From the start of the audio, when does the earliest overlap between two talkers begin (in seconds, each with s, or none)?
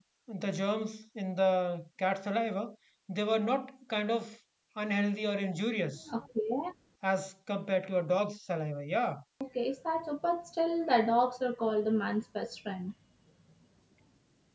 none